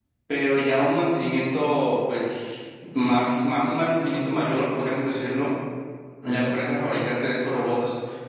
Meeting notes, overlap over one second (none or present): none